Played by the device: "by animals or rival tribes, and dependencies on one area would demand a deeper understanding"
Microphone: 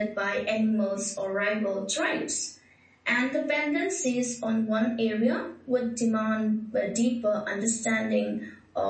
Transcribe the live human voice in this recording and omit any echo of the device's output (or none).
none